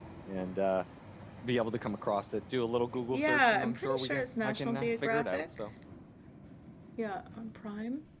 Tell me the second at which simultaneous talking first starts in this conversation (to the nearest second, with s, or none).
3 s